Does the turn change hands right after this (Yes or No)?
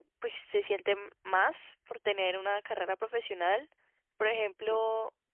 No